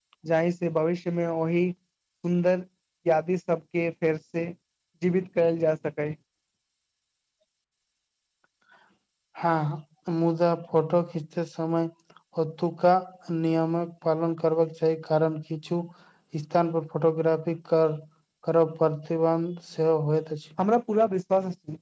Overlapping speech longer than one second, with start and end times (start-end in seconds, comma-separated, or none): none